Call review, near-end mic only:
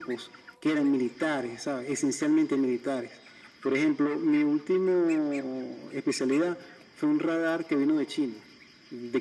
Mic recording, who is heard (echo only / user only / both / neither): echo only